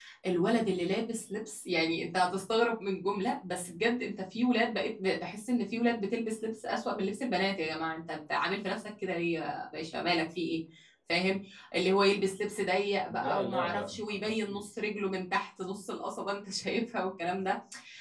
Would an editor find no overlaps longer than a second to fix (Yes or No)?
No